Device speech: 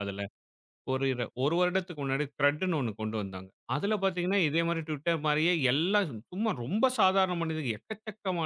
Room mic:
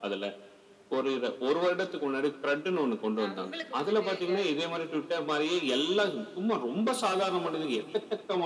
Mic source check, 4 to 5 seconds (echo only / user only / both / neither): both